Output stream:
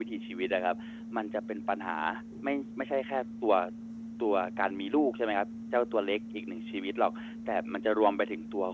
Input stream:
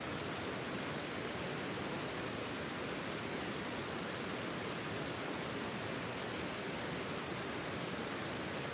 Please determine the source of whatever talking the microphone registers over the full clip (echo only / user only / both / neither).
neither